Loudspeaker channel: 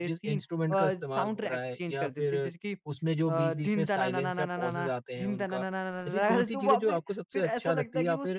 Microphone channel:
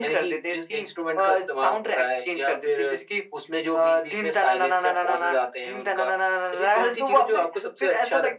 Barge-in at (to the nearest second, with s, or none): none